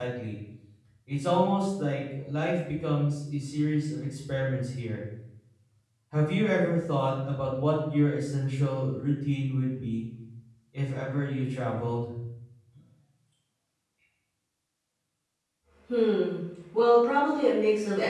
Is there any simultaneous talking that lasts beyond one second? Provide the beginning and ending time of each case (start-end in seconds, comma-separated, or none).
none